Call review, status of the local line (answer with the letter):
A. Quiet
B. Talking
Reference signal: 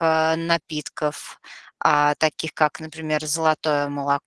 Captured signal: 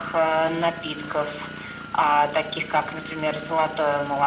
A